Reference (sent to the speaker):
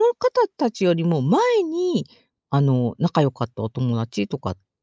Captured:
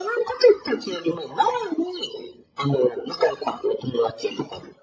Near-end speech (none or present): none